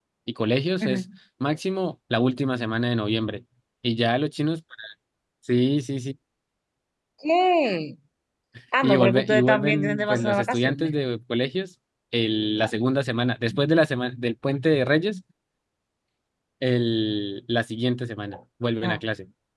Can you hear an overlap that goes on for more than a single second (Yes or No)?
Yes